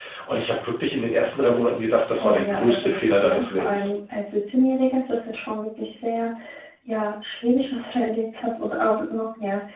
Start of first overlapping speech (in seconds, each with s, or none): 2.2 s